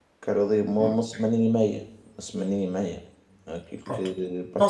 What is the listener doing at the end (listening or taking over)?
taking over